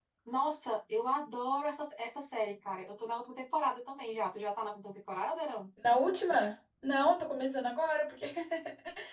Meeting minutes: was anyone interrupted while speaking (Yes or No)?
No